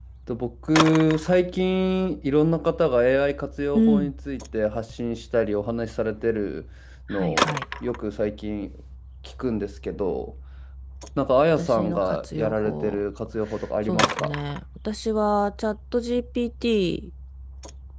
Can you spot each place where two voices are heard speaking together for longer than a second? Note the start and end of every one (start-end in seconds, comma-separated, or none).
11.6-13.0